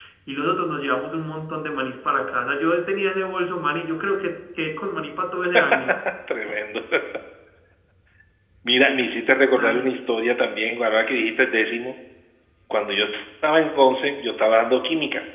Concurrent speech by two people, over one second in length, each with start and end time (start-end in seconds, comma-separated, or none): none